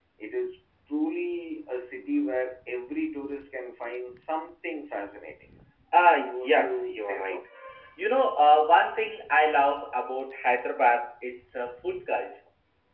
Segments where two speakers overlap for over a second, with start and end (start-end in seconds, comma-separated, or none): 6.1-7.4